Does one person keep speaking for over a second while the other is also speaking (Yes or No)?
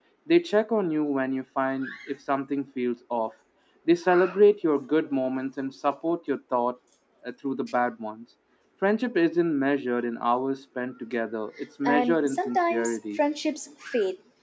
Yes